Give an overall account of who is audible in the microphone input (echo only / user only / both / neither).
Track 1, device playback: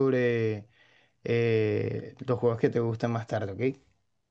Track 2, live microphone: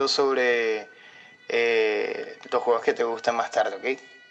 echo only